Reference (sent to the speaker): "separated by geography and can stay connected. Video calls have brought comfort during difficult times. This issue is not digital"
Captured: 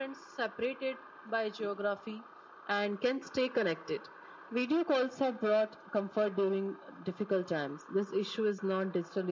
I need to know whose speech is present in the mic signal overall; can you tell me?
echo only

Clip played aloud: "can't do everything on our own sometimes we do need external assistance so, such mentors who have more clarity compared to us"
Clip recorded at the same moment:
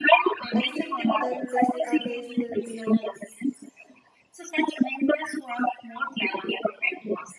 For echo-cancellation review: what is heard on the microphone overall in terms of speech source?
both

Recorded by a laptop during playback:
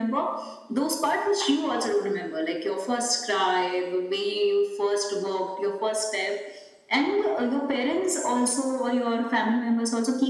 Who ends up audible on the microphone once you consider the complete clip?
echo only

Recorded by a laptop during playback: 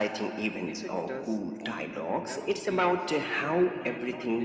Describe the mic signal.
both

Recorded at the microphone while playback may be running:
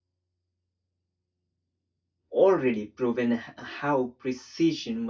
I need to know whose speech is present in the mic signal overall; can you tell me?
user only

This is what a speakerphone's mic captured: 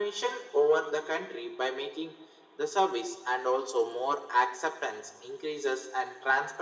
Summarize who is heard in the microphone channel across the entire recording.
echo only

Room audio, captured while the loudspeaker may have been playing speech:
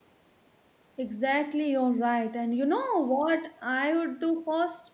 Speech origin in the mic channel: user only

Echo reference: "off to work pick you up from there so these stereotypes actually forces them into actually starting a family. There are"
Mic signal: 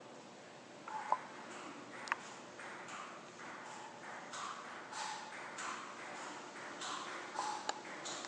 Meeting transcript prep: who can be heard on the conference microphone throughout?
neither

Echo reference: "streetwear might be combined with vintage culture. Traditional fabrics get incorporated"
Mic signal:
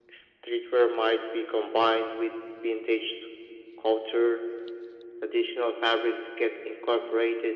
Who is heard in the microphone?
echo only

